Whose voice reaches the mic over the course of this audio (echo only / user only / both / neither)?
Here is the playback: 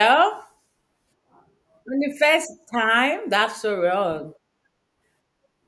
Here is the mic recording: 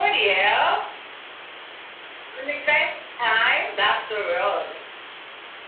echo only